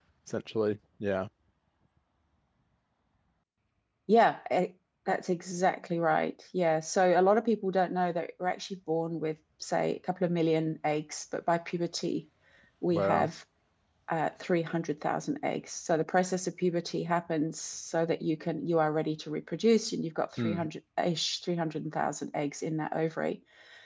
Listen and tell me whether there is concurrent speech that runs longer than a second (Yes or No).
No